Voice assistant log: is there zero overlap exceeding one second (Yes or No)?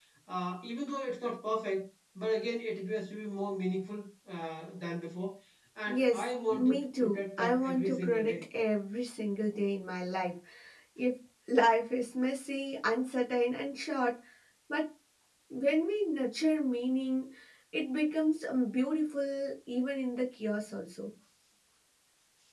No